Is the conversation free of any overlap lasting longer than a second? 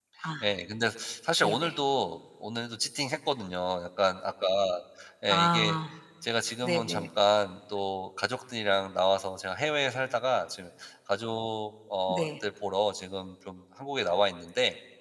Yes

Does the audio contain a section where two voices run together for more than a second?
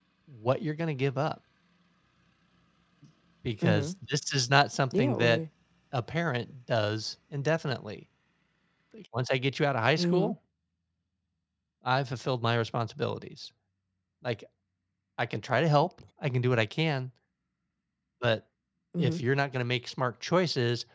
No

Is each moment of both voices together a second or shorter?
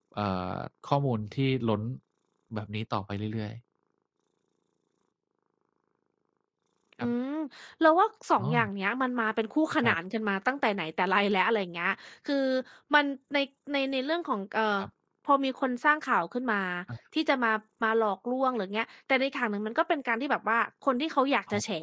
Yes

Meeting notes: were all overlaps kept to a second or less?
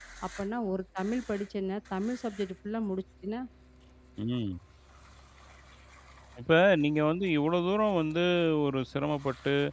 Yes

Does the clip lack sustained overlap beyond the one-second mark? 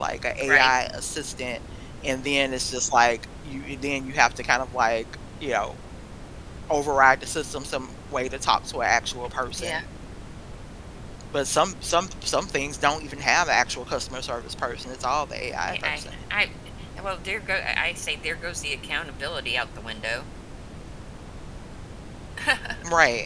Yes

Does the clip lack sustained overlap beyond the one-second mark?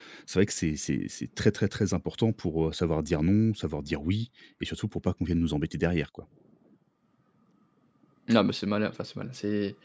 Yes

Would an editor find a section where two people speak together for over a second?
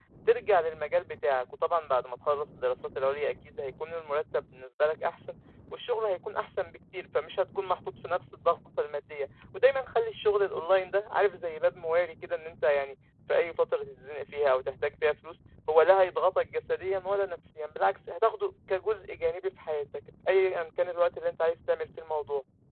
No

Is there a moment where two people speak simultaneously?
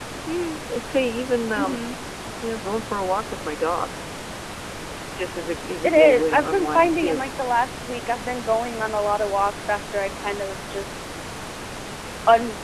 Yes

